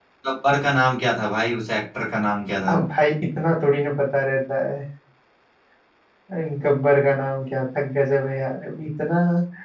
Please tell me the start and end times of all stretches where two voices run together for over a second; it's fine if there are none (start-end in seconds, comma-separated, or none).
none